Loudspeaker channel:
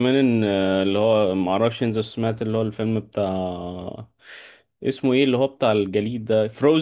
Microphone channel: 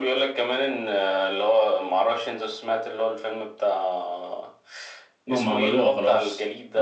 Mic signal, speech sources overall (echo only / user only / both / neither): both